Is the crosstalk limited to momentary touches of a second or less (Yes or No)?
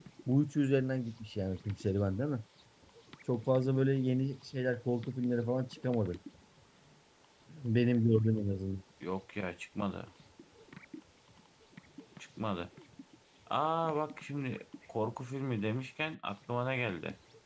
Yes